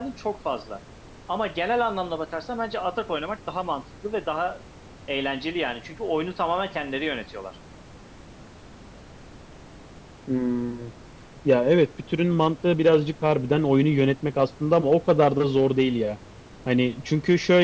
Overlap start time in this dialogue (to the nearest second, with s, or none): none